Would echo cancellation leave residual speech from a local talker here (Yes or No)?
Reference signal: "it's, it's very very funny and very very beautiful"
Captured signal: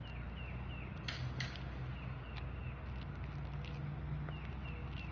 No